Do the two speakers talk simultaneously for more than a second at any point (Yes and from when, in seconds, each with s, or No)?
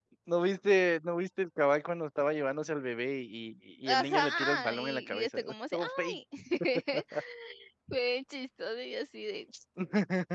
Yes, from 3.9 s